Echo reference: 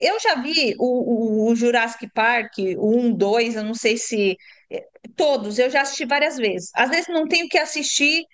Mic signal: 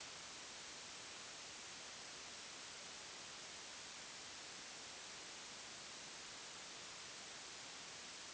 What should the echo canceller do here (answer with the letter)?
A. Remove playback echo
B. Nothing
B